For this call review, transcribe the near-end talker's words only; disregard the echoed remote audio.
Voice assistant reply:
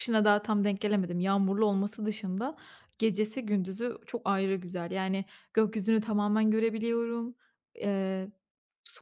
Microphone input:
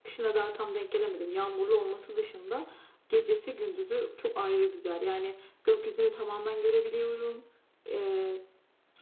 none

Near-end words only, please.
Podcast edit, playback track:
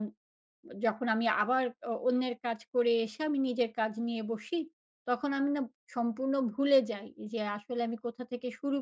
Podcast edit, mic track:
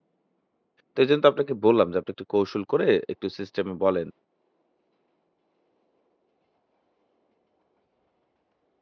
তো এজন্য তো আপনাকে বললাম যে আপনি একটু কৌশল করে একটু সিস্টেমে বলেন।

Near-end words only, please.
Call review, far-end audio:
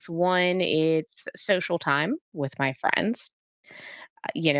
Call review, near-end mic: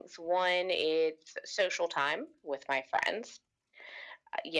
none

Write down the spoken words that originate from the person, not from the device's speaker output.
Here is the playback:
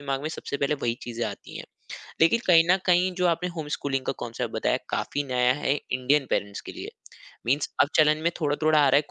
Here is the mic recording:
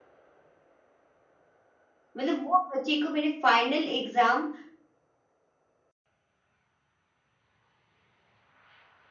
मतलब वो बच्चे को मैंने फाइनल एग्जाम

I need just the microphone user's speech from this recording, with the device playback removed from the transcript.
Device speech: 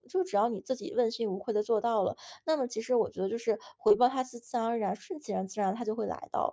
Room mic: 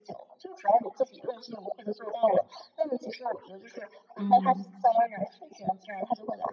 嗯，

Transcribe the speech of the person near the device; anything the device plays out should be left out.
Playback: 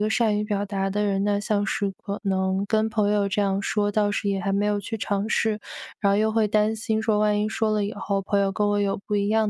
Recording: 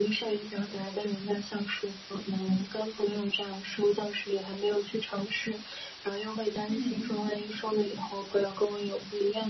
嗯嗯。

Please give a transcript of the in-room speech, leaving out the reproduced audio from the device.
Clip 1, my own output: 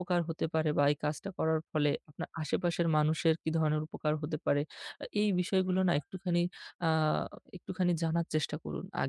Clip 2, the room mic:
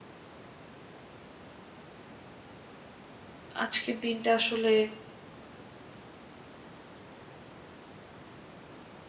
আজকের দিনটা আসলে

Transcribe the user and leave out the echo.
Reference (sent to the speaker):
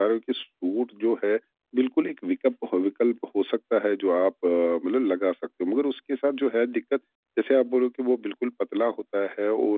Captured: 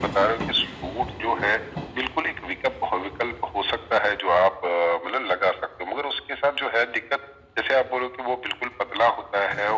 none

